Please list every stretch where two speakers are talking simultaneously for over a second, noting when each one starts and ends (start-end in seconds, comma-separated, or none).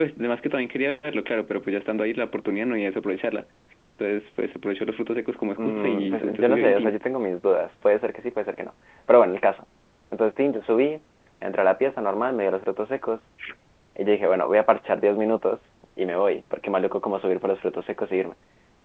5.6-7.0